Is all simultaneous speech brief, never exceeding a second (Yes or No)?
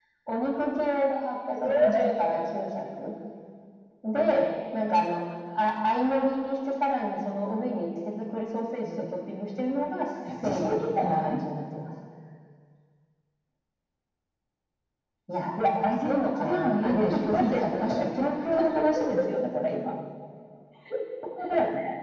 No